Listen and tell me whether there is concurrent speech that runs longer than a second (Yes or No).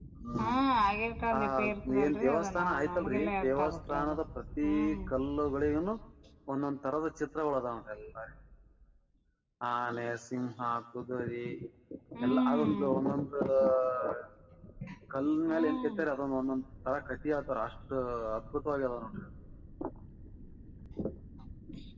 Yes